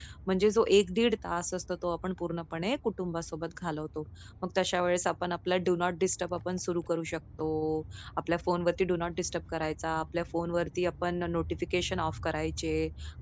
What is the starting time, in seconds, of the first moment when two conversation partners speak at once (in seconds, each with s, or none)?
none